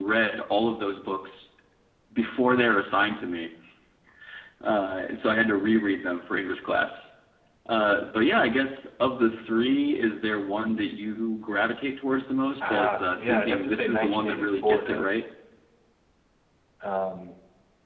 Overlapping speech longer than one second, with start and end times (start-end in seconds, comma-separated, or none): 12.6-15.2